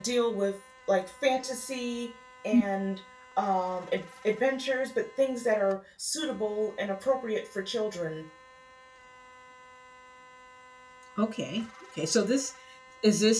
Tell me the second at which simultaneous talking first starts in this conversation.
none

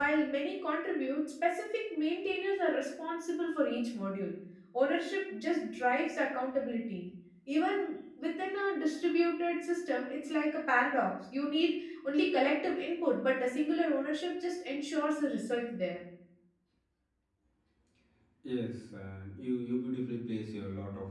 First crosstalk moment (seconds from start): none

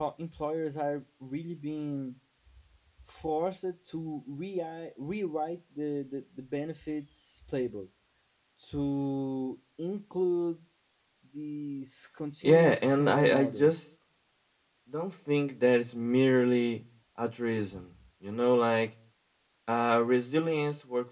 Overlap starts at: 12.4 s

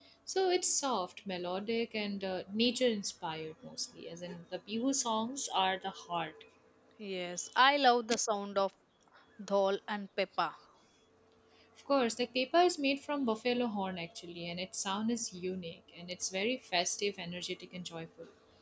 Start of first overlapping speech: none

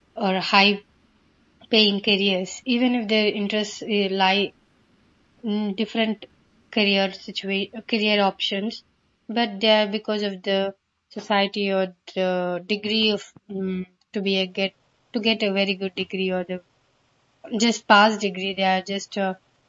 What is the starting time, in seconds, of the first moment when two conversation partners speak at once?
none

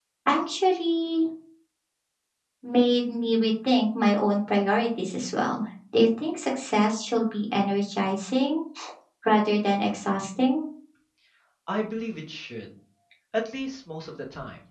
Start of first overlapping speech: none

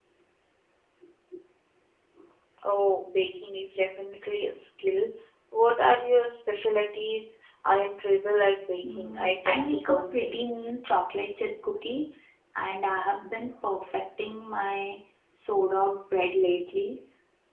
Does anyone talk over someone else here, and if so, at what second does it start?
8.8 s

